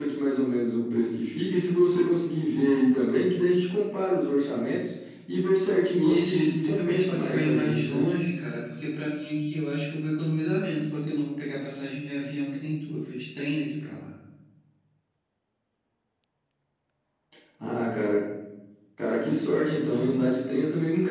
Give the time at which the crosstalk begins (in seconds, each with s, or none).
6.0 s